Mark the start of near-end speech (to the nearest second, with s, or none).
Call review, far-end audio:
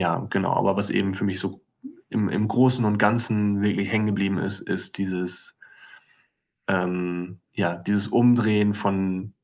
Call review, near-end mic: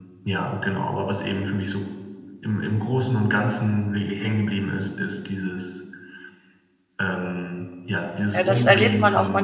8 s